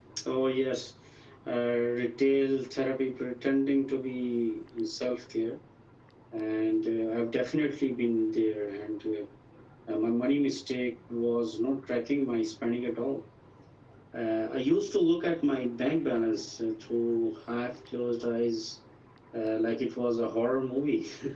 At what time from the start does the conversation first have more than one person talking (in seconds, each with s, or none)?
none